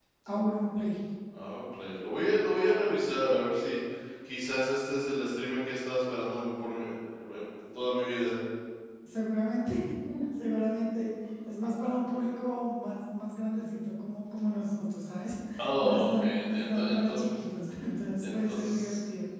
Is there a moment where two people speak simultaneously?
Yes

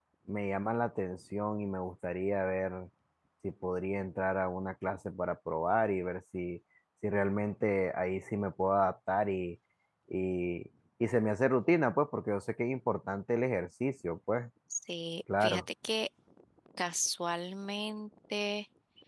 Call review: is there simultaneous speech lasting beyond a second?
No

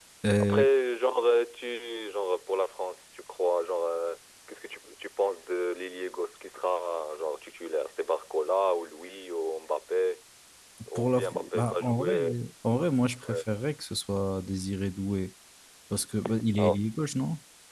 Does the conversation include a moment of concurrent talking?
Yes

